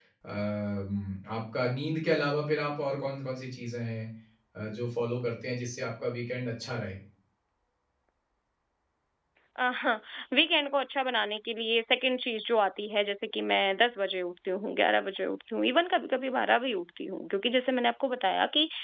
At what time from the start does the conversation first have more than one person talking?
none

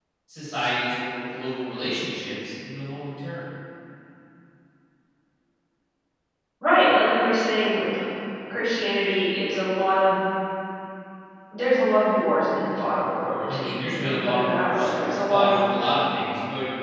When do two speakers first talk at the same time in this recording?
13.4 s

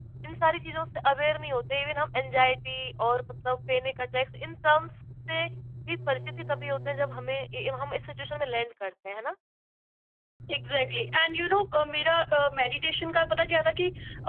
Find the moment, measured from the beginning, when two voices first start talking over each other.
none

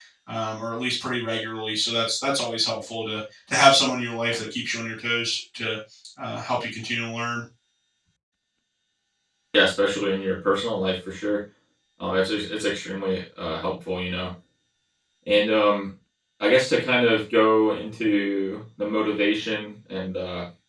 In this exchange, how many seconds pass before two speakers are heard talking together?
none

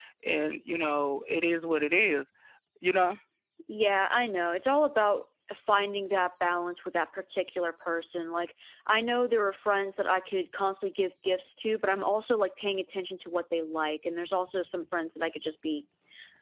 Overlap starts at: none

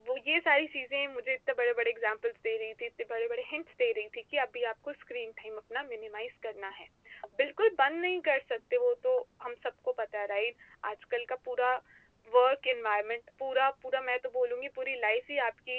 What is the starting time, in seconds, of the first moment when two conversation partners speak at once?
none

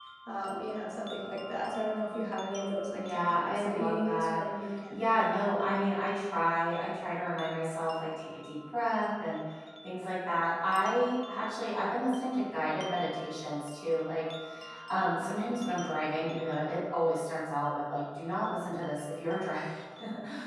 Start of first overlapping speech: 2.9 s

